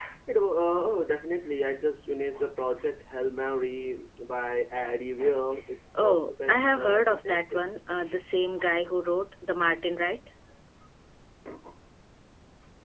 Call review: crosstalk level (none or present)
present